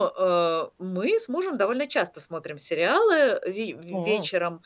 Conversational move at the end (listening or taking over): listening